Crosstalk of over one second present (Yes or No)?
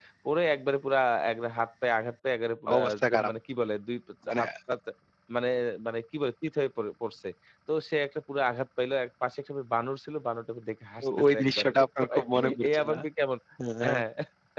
Yes